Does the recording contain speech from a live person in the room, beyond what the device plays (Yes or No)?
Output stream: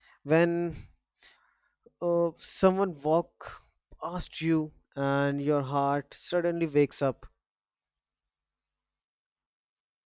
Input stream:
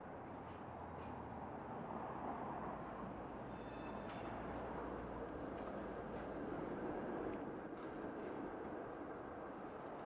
No